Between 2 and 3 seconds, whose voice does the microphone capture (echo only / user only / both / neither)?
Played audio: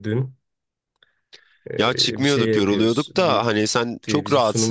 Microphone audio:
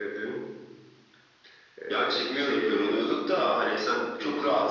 echo only